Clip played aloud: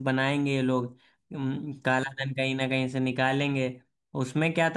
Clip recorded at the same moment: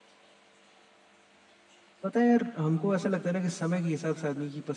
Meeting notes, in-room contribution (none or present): present